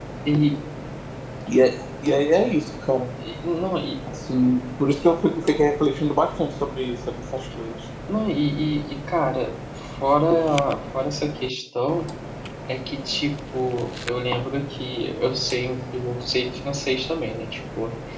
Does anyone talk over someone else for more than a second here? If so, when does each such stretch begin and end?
none

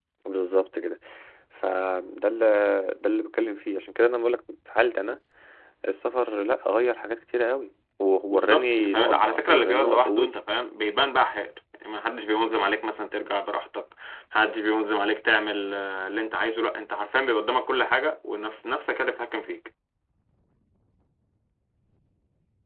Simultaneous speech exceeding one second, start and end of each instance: 8.3-10.3

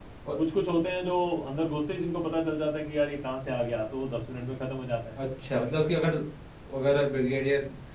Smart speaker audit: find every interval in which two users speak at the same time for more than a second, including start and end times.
none

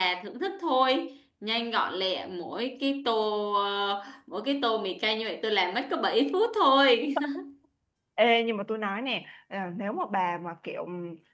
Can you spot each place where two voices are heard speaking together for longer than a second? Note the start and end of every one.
none

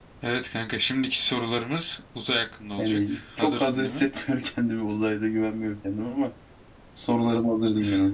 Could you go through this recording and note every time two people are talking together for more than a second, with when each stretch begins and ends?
2.8-4.0

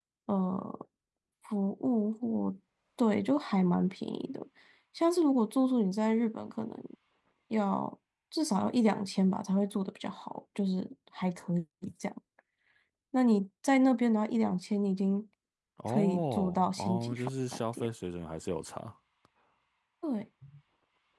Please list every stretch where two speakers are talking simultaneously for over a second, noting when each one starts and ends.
15.9-17.2

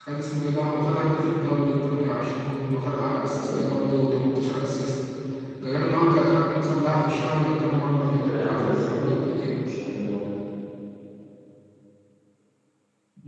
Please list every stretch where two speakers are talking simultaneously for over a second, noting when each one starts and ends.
8.1-9.6

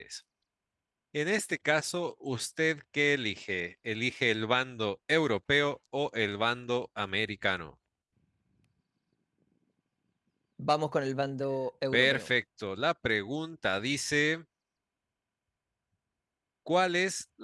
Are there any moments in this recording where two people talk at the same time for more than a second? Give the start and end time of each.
none

